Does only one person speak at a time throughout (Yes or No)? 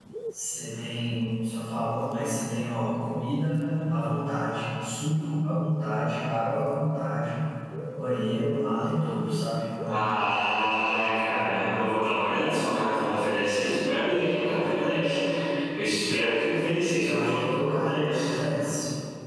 No